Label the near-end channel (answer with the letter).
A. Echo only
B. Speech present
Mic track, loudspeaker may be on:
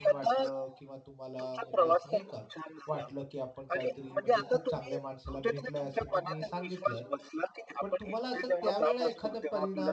B